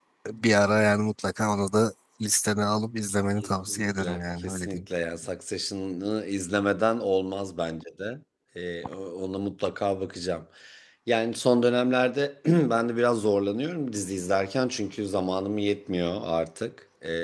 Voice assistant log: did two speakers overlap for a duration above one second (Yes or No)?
Yes